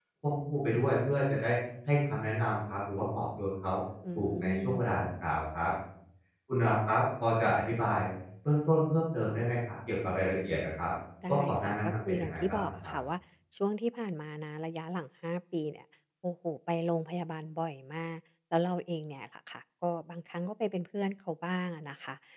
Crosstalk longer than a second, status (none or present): present